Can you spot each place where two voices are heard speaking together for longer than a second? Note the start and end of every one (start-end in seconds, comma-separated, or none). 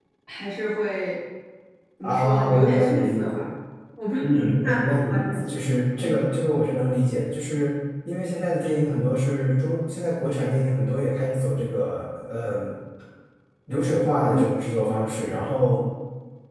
2.0-3.5, 4.3-5.5